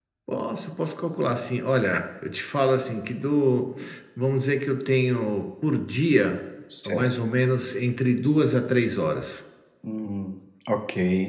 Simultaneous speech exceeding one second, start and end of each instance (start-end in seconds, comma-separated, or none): none